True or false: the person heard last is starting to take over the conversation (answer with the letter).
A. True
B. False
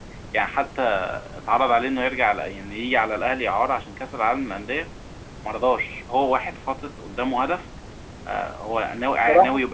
B